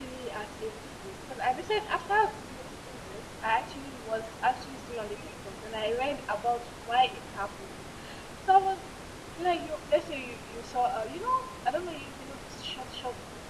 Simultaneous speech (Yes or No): No